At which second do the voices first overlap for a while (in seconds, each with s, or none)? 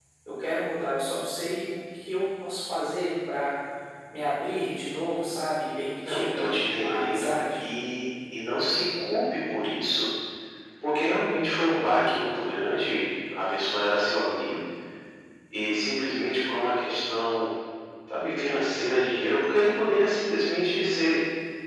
6.0 s